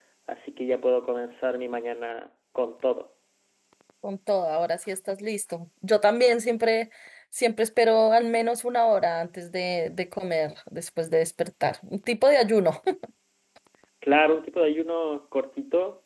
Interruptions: none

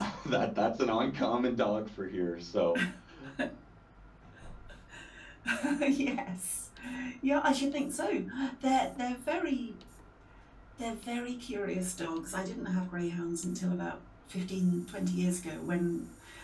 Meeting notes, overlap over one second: none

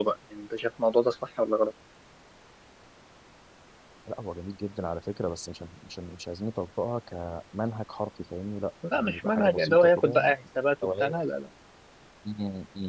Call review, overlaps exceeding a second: present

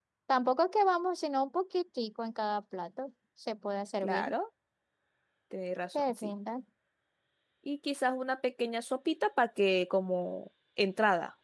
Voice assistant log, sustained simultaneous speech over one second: none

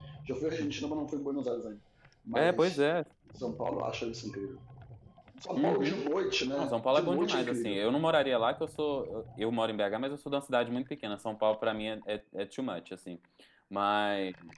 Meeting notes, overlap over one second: present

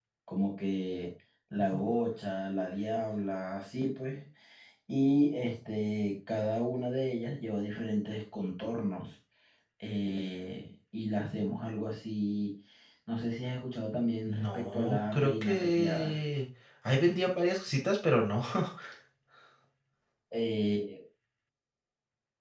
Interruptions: present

